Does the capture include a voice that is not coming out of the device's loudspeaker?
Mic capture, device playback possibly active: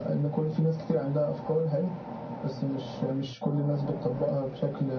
No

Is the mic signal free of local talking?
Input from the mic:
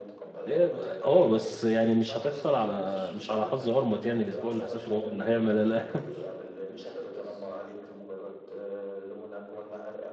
No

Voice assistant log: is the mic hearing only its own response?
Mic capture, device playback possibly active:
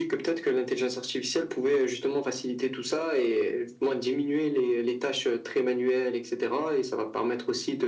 Yes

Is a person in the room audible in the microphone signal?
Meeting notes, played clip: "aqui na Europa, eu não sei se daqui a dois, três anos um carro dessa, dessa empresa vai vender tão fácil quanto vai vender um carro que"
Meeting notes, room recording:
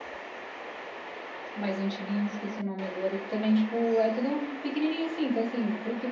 Yes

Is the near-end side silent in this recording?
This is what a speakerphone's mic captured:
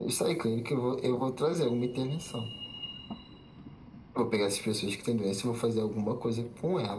Yes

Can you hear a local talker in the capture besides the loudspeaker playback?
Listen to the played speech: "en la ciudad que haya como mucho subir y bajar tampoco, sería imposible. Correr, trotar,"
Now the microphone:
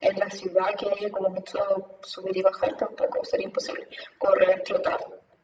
No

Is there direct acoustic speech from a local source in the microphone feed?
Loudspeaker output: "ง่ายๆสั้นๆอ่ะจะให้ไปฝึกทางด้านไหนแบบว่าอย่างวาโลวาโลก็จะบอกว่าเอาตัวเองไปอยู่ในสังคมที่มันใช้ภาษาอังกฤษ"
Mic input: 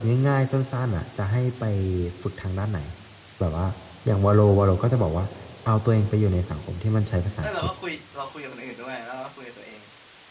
Yes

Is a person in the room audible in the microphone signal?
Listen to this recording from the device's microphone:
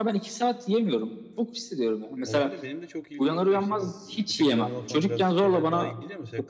Yes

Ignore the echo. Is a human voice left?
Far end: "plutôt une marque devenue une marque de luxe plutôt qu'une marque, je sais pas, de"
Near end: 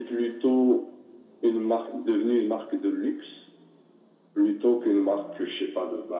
No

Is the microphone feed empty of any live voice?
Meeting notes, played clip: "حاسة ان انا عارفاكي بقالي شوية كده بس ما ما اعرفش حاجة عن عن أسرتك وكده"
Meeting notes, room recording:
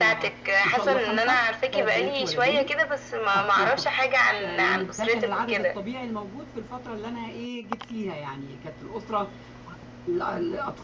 No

